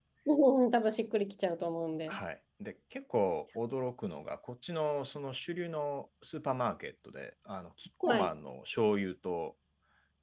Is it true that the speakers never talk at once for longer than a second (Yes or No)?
Yes